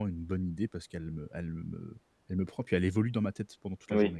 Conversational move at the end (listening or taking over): taking over